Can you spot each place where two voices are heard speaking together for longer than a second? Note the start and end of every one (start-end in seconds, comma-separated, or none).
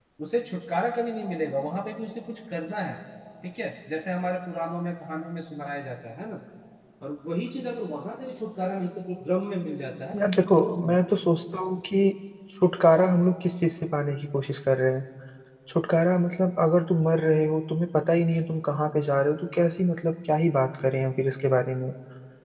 none